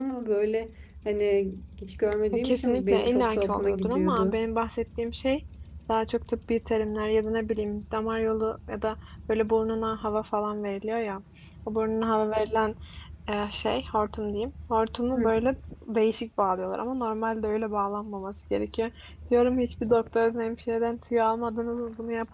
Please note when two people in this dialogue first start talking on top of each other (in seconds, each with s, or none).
2.3 s